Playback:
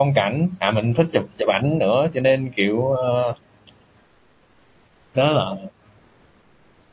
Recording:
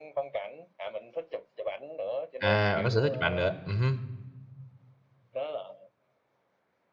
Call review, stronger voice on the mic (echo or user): user